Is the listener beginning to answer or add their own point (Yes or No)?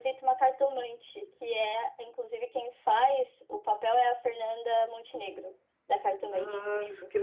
Yes